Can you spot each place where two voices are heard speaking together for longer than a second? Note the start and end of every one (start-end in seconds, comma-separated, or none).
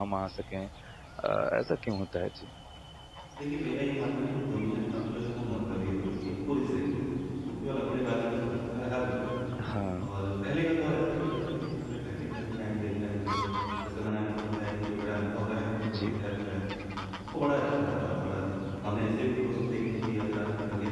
none